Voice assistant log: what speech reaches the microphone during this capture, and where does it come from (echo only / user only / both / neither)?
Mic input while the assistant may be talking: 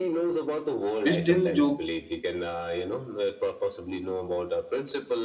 both